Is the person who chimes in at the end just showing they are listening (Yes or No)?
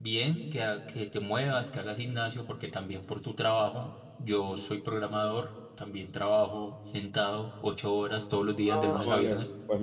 No